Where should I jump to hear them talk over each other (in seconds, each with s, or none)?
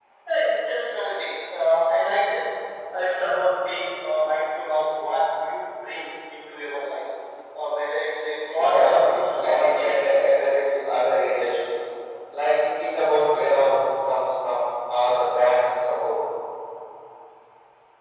8.6 s